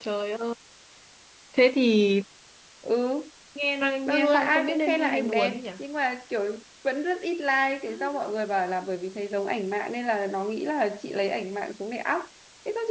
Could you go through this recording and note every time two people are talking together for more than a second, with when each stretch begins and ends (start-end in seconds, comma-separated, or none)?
4.1-5.6